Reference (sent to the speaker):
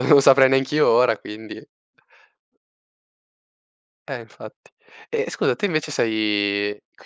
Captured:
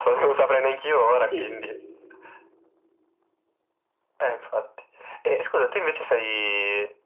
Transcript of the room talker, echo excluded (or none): Sì,